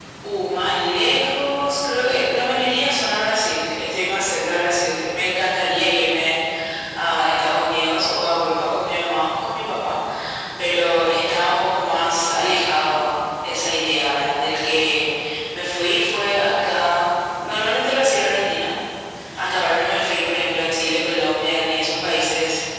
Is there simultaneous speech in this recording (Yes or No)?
No